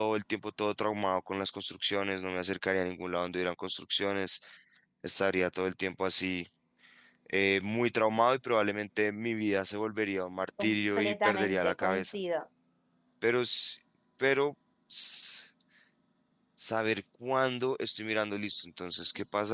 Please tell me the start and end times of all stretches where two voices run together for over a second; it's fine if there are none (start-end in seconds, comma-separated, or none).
10.6-12.2